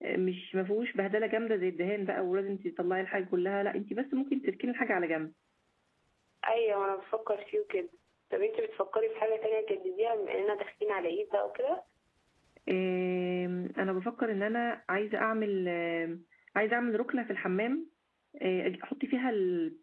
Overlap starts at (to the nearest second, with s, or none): none